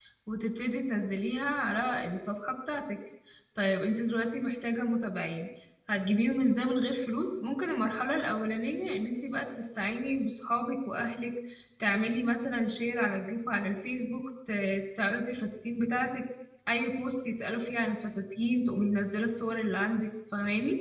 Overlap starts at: none

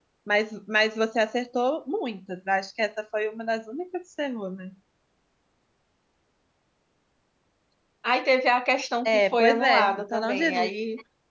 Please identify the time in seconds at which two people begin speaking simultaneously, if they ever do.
9.1 s

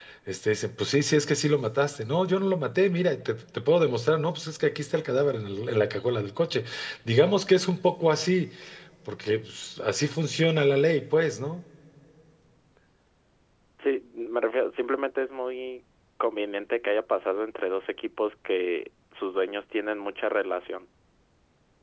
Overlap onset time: none

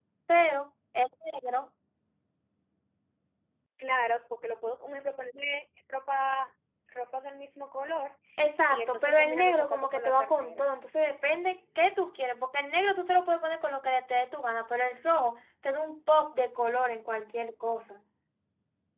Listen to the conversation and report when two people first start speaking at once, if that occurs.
8.7 s

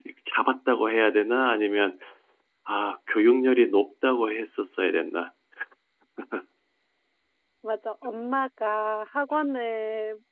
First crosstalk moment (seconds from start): none

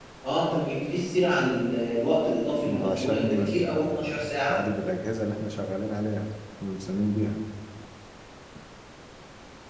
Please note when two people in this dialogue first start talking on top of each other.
2.7 s

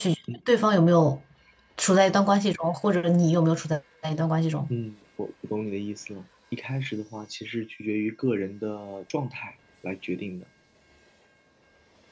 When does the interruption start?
none

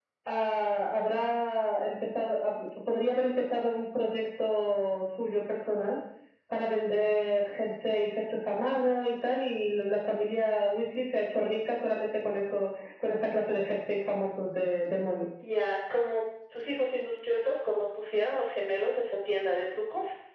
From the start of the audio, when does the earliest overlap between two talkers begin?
none

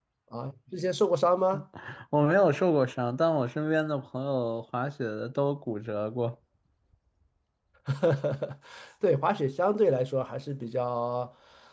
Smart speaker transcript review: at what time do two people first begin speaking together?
none

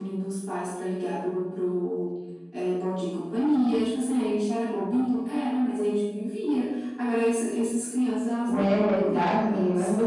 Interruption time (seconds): 8.5 s

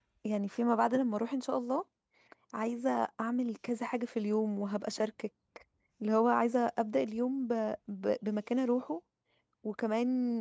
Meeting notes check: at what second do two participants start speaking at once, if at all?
none

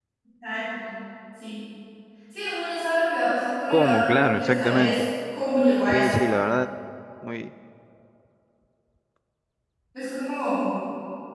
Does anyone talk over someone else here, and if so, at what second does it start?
3.7 s

